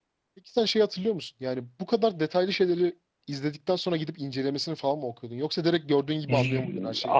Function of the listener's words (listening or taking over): taking over